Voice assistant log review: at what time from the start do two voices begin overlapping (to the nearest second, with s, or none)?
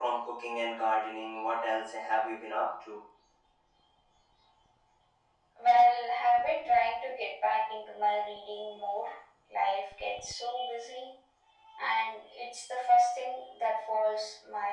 none